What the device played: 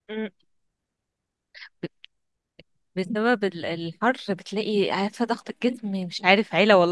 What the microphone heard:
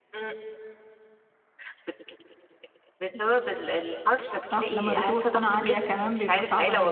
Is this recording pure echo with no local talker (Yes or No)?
No